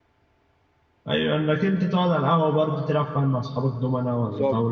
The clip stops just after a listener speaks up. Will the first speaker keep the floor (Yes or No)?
No